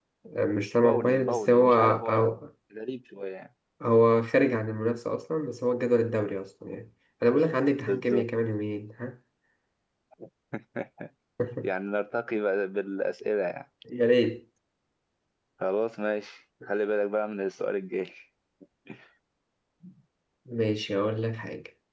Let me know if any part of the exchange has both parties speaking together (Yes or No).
Yes